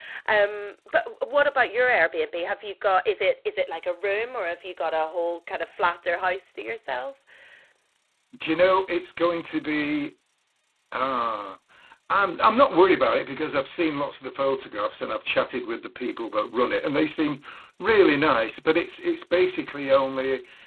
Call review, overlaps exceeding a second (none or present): none